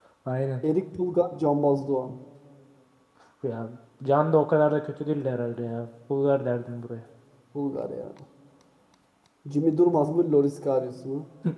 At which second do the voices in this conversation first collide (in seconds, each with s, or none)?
none